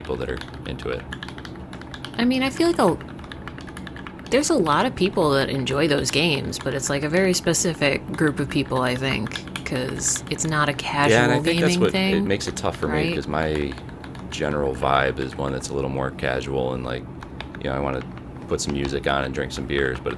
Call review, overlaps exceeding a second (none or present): present